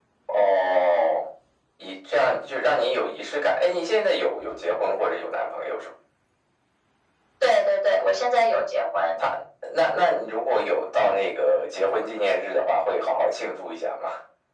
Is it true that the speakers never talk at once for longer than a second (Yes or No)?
Yes